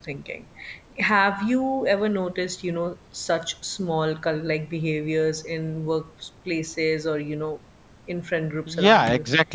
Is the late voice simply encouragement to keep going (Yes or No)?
No